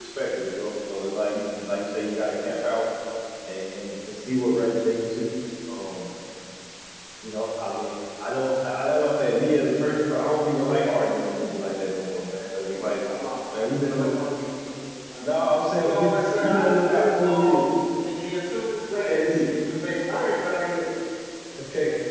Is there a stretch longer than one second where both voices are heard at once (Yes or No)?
Yes